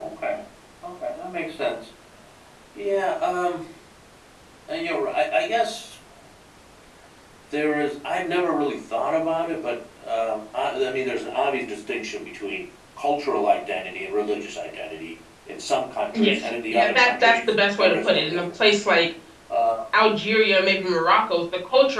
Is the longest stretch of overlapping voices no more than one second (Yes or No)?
No